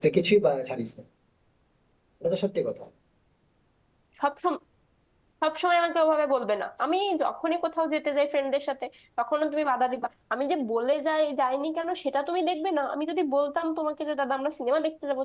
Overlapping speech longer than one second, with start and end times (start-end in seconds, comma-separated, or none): none